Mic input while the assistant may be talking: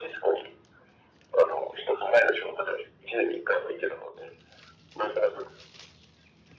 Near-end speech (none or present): none